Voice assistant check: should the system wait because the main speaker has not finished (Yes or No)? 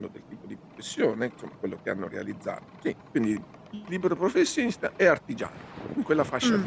No